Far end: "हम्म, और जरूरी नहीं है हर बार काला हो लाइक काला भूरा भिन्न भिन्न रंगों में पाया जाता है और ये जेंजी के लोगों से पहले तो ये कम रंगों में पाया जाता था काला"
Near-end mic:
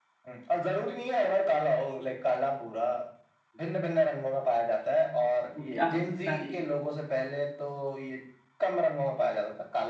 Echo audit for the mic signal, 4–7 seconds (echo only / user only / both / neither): both